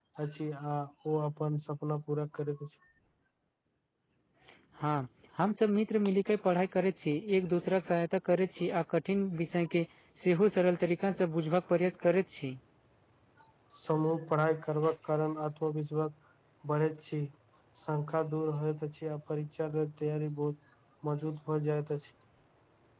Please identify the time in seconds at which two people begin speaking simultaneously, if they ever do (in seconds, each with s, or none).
none